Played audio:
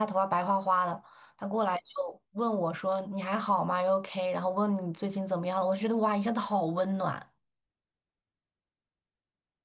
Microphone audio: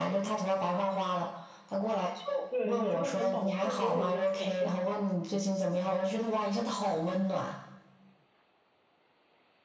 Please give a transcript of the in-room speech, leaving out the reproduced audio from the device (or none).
对对，就会很保护工人的权利。